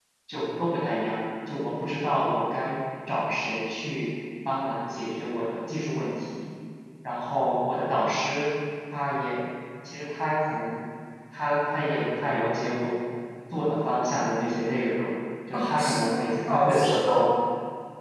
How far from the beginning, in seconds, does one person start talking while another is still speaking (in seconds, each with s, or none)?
15.5 s